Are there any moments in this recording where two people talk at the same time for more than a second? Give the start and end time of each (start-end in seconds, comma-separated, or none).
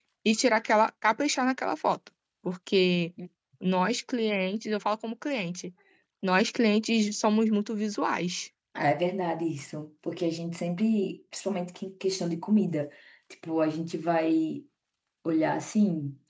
none